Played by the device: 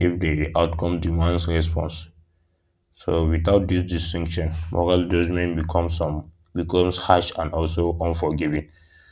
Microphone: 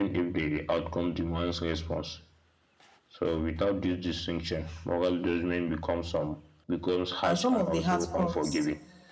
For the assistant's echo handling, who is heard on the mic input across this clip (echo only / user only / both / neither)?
both